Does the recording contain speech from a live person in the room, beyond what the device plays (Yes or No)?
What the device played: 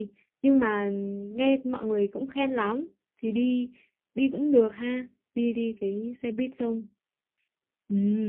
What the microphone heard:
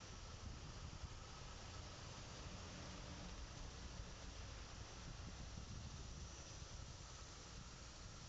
No